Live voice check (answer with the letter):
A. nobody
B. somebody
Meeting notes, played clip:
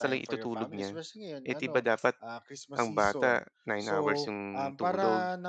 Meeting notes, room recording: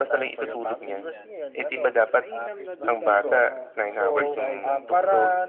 B